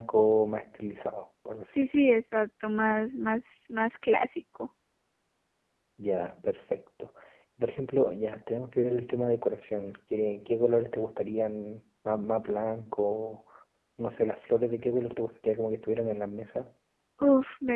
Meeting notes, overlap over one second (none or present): none